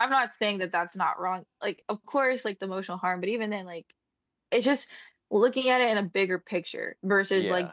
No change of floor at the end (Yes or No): Yes